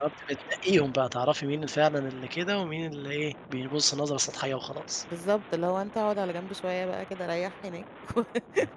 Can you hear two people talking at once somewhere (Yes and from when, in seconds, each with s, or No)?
No